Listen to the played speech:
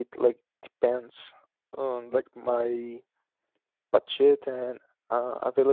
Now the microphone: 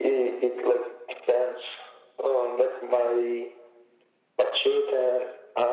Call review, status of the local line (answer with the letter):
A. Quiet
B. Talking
A